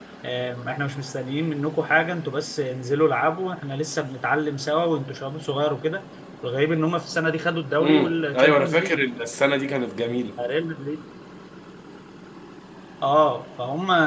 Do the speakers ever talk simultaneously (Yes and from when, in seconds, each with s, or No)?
Yes, from 7.8 s